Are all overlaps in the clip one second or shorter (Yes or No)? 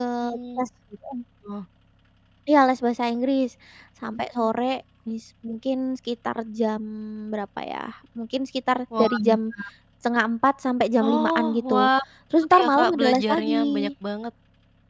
No